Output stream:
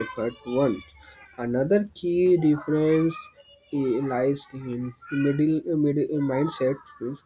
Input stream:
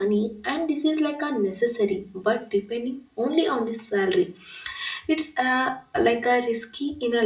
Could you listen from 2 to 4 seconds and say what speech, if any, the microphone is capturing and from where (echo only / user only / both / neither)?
user only